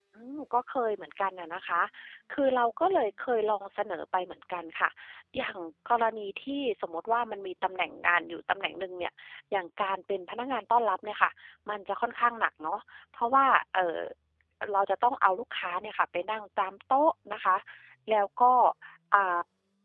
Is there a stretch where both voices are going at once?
No

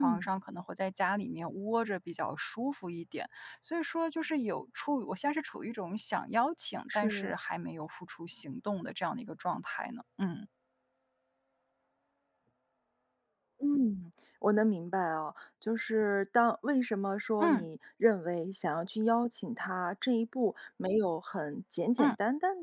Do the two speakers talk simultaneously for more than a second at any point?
No

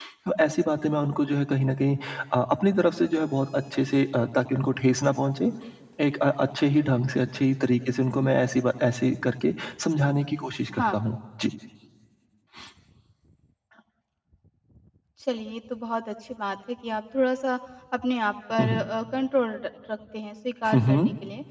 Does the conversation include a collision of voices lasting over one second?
No

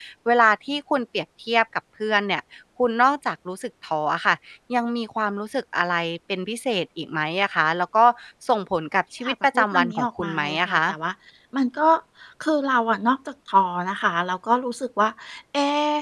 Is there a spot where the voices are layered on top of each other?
Yes, from 9.2 s

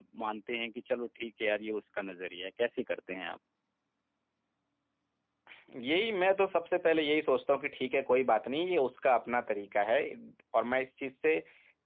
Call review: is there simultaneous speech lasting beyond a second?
No

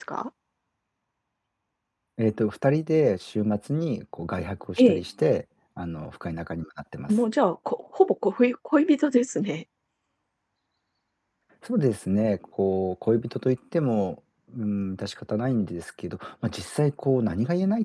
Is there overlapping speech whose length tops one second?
No

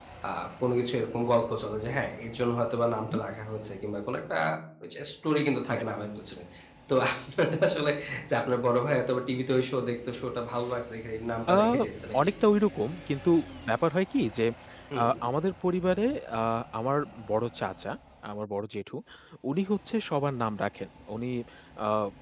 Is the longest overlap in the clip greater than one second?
No

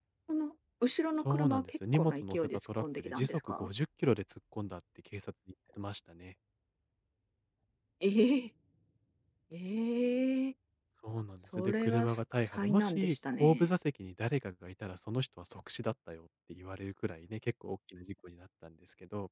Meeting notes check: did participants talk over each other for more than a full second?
Yes, from 1.2 s

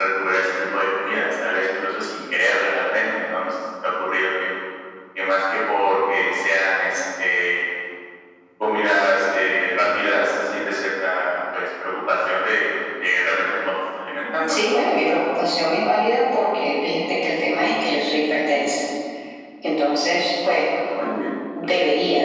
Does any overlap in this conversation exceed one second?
No

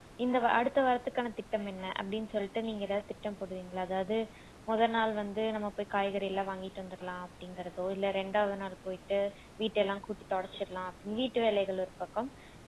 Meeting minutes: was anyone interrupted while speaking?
No

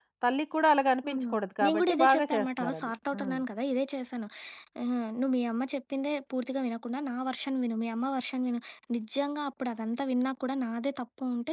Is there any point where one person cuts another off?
Yes, from 1.1 s

